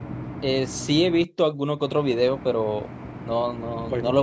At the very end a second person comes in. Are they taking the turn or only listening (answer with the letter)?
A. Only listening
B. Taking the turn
B